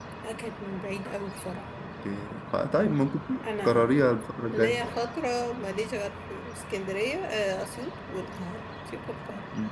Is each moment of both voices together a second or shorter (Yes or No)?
Yes